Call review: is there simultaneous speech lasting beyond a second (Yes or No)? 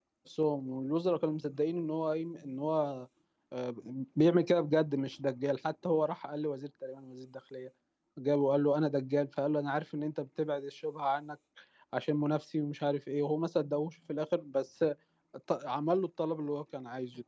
No